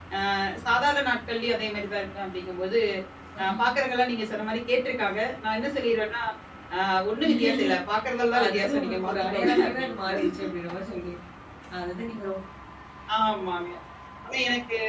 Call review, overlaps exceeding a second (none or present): present